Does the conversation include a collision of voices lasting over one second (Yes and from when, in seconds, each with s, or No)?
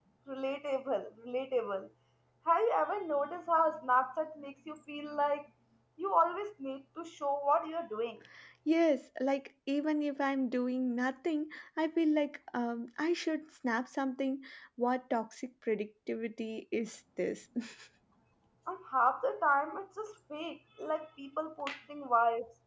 No